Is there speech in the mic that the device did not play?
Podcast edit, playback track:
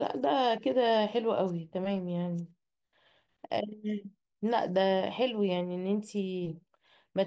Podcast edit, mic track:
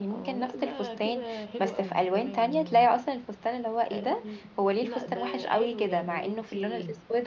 Yes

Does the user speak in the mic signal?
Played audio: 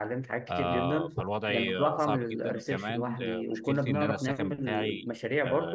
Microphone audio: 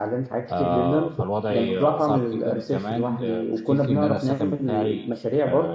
No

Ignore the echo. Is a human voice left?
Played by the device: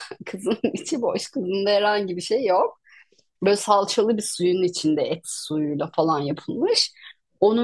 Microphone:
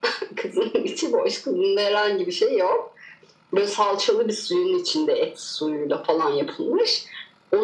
No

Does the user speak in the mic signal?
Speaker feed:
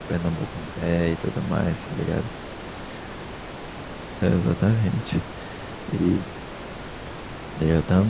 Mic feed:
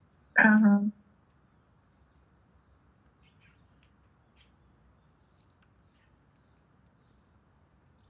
Yes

